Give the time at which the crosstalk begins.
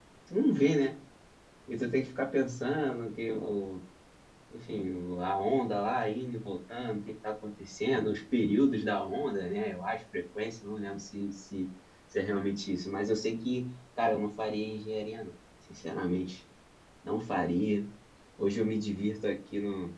none

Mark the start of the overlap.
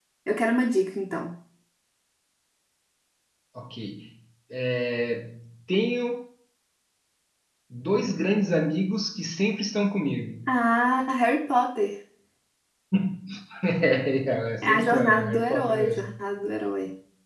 14.6 s

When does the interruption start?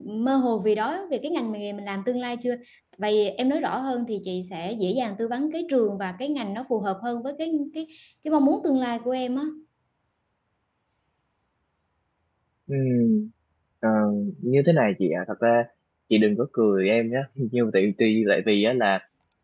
none

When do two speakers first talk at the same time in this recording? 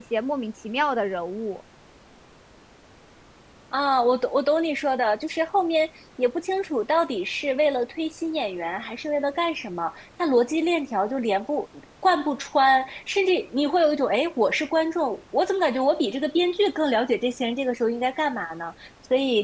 none

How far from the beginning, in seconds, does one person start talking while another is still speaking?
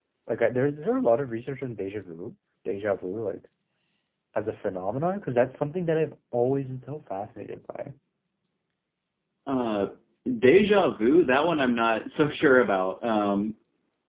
none

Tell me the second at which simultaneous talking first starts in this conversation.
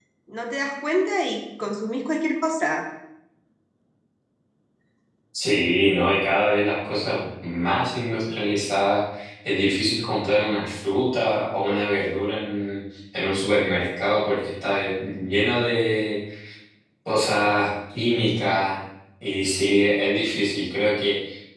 none

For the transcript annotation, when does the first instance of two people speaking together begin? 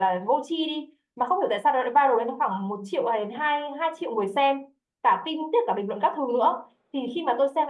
none

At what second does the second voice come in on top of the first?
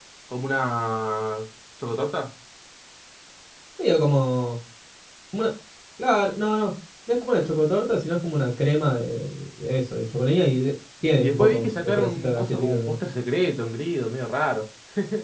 11.2 s

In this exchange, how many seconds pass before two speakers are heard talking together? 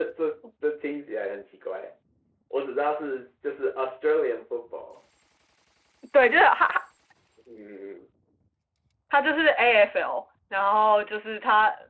none

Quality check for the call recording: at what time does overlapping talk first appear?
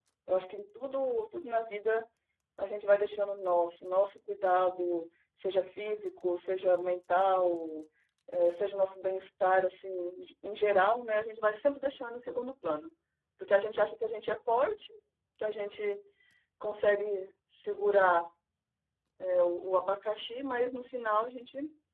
none

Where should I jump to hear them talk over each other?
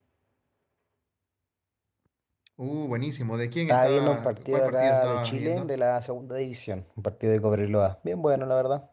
3.7 s

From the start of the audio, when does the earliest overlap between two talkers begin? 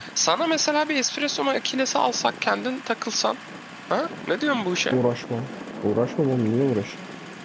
none

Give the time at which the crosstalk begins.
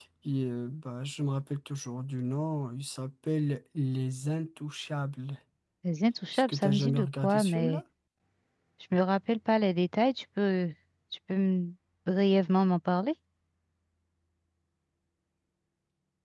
6.3 s

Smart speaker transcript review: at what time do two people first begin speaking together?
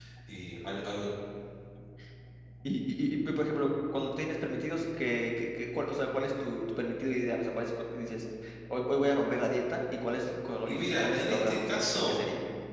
10.6 s

